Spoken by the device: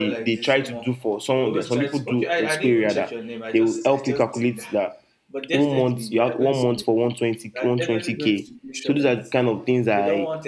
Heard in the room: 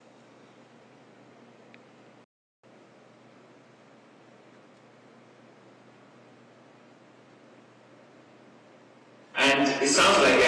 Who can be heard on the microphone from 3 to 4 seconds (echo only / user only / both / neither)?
neither